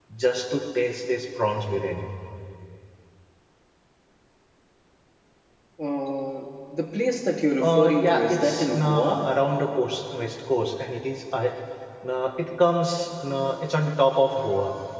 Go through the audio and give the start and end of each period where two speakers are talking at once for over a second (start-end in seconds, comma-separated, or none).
7.6-9.3